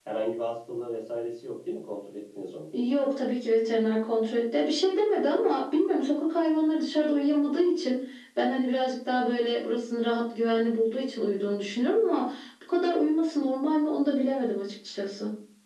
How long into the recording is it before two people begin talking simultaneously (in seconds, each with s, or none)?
none